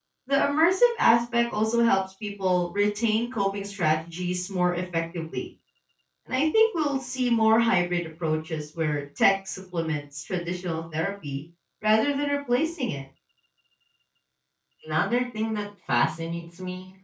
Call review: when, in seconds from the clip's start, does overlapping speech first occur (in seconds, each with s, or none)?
none